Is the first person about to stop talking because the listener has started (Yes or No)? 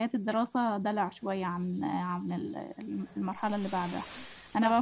No